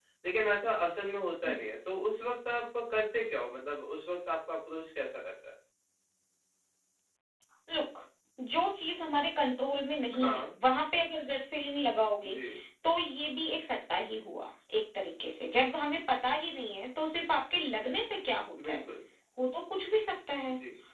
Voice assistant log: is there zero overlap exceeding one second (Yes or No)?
Yes